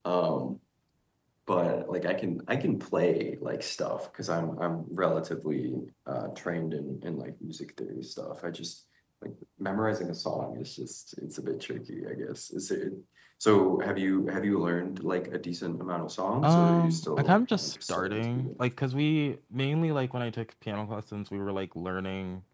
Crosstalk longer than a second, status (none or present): present